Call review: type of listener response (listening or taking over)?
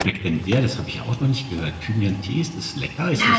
taking over